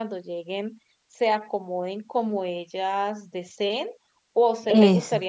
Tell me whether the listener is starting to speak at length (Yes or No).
No